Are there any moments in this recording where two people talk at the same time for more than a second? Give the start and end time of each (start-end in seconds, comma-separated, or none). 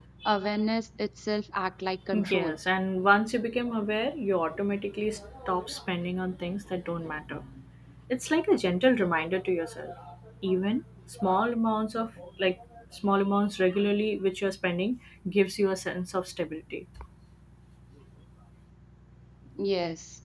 none